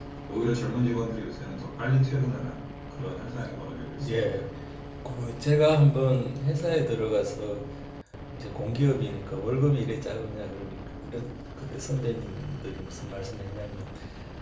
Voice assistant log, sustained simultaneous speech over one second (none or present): none